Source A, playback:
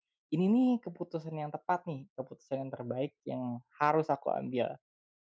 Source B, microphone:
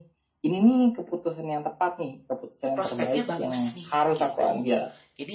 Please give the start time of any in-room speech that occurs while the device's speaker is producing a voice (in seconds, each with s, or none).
2.7 s